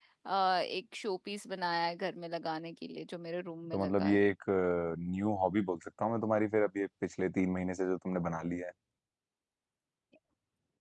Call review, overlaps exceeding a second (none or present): none